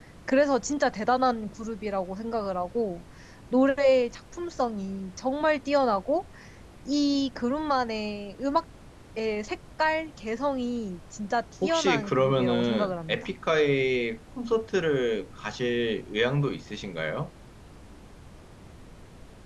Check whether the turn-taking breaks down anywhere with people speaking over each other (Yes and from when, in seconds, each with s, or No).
Yes, from 11.6 s